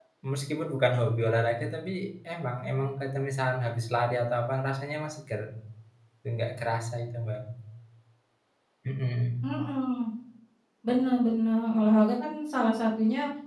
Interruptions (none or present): none